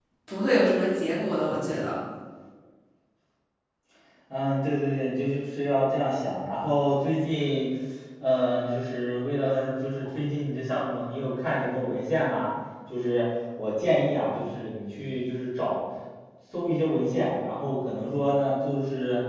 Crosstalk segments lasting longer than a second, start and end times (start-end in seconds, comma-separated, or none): none